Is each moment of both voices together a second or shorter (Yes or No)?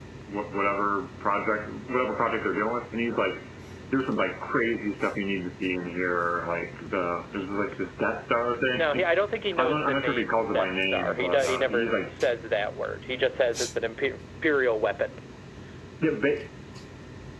No